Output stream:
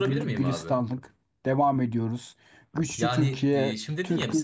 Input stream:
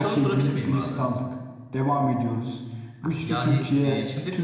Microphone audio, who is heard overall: echo only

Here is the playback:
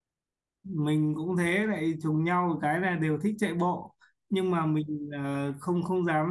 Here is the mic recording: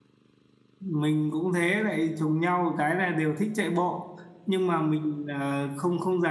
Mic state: echo only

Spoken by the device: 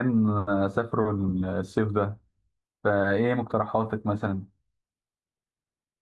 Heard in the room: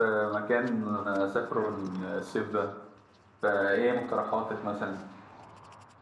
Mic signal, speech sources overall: echo only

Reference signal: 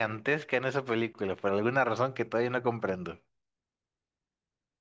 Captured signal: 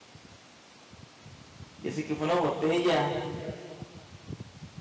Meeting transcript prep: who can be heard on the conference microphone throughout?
user only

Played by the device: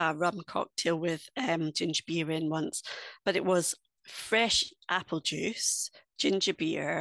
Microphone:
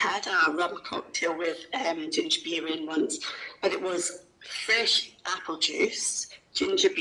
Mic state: echo only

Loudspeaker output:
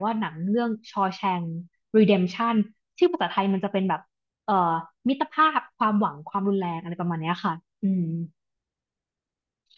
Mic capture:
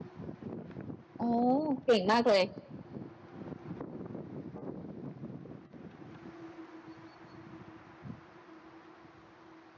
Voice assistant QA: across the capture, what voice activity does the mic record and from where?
user only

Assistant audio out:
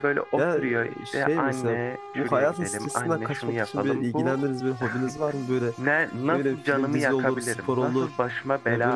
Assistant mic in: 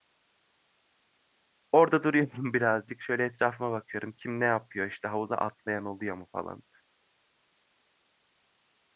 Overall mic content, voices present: user only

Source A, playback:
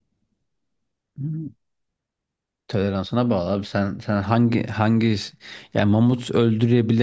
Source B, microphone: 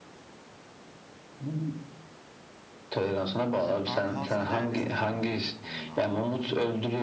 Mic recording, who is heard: both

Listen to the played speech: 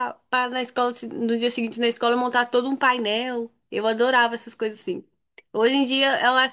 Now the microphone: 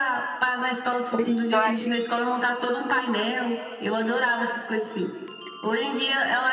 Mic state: both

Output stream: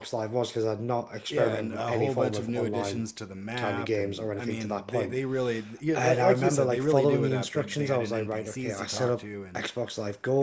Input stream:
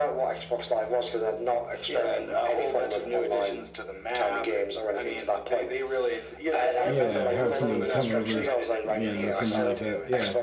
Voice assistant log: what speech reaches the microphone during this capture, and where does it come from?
both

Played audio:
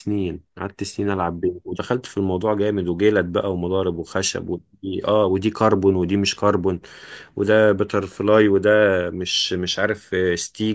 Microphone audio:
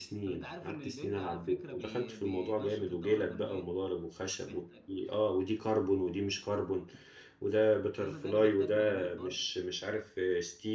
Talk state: both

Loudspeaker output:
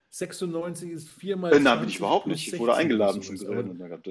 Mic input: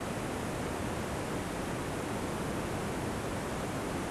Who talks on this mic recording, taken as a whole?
neither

